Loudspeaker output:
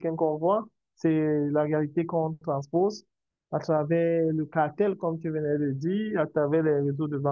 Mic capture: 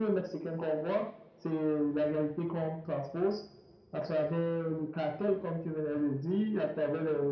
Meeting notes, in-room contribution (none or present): none